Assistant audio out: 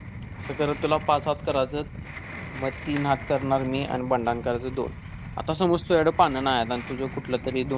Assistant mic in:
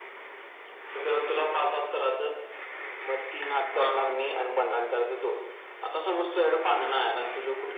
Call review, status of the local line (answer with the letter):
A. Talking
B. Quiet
A